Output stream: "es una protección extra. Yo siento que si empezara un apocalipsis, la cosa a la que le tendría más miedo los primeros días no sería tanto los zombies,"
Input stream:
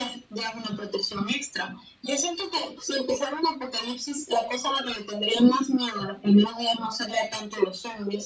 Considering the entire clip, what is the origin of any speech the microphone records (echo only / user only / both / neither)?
echo only